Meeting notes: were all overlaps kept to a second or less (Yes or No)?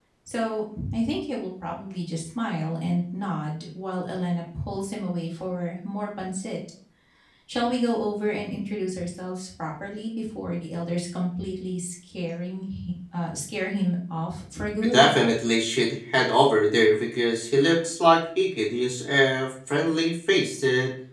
Yes